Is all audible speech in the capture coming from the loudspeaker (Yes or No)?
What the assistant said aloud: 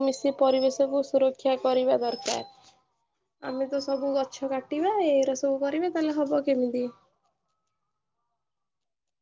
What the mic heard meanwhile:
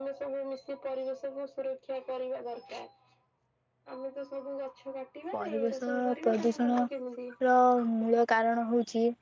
No